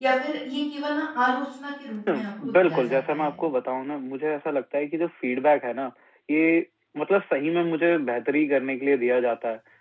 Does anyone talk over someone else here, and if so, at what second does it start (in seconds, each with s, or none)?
2.1 s